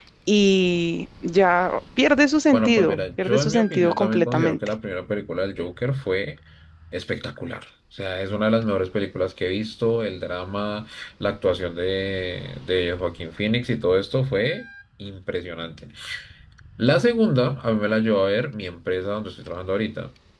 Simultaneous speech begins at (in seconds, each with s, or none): 2.5 s